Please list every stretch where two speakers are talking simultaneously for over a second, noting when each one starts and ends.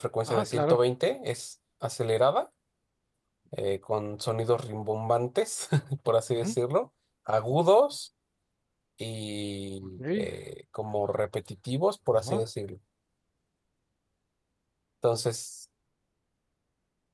none

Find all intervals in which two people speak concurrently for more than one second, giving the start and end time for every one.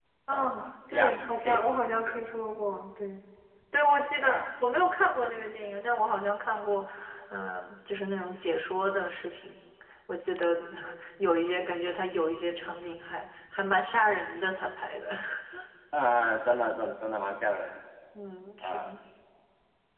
0.9-2.2

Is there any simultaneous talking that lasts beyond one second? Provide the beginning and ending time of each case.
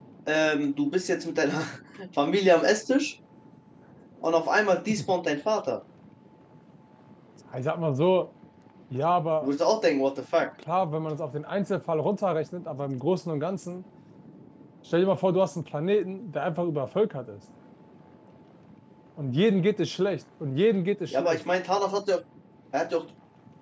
none

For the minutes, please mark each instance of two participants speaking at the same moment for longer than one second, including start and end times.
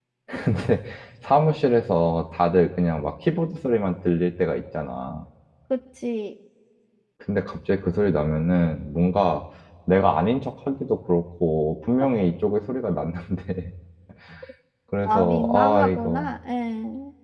15.0-16.3

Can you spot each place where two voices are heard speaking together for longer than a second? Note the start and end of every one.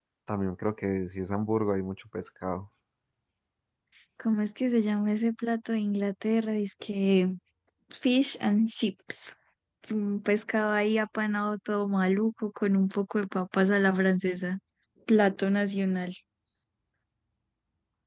none

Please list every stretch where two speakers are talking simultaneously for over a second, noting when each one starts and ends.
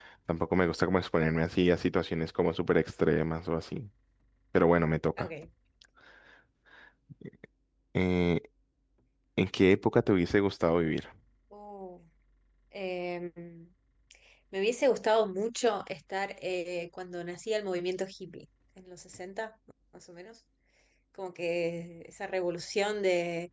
none

